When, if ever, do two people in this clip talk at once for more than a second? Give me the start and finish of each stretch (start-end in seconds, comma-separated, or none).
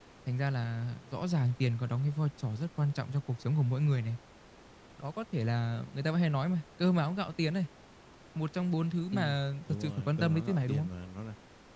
9.7-10.9